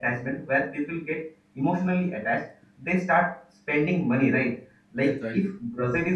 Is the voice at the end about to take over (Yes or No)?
No